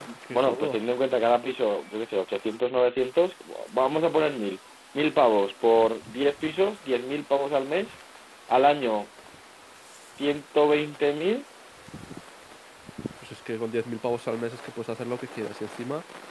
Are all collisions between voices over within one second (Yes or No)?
Yes